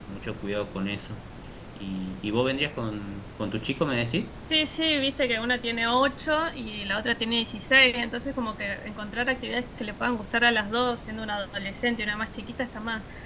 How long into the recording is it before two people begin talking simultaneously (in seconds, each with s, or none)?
none